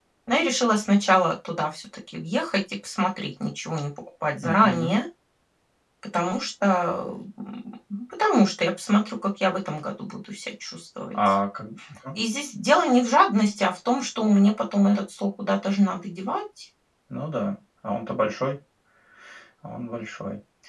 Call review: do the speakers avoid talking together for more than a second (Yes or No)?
Yes